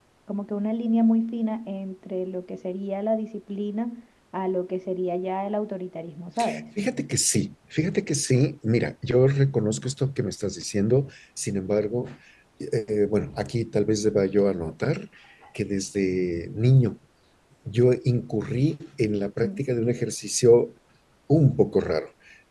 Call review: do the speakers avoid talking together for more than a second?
Yes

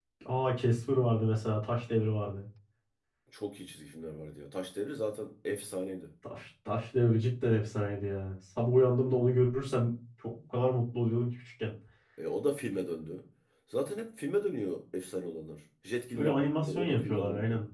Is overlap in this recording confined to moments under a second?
No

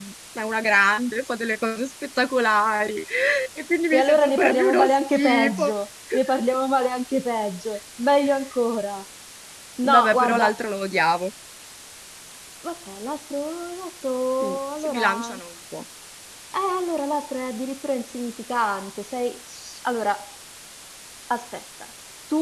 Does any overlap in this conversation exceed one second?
Yes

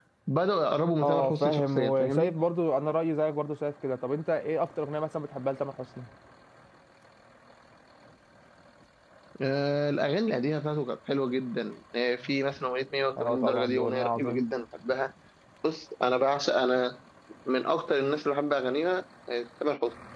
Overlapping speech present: Yes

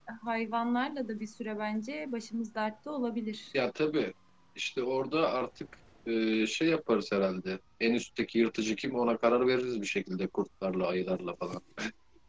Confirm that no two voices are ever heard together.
Yes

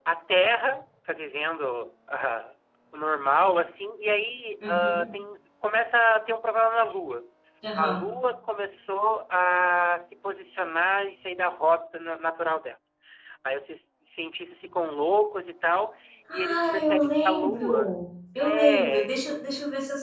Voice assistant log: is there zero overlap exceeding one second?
No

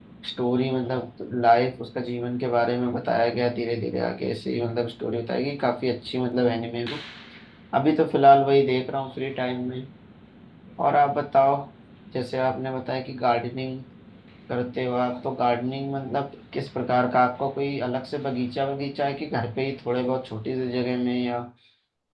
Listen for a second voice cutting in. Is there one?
No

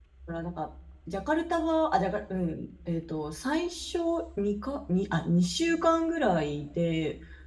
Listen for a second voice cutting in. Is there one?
No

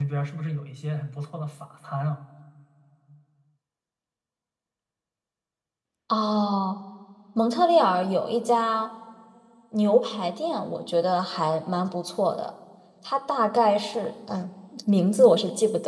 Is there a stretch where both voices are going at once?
No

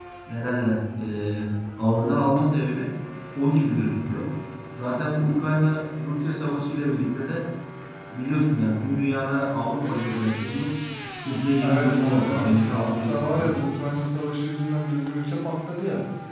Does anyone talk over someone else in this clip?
Yes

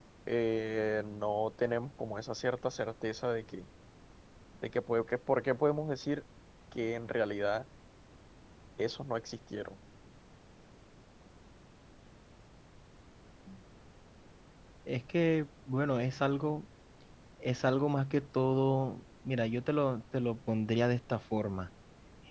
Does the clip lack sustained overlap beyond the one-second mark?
Yes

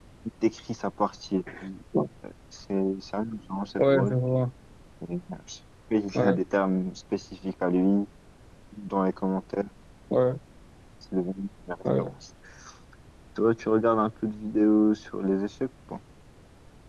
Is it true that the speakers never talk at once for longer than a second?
Yes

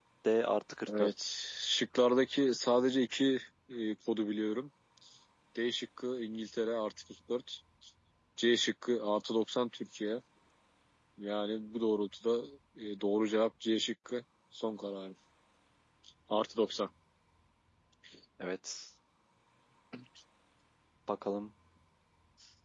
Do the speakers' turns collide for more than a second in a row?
No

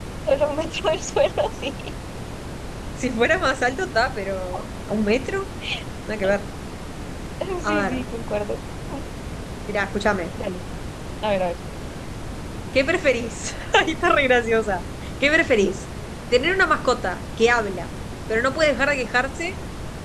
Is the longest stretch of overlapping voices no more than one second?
Yes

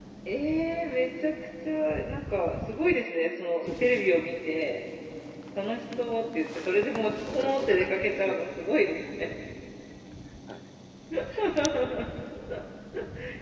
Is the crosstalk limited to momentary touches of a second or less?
No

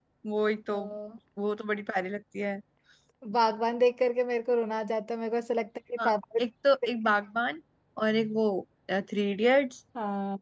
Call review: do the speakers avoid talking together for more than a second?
Yes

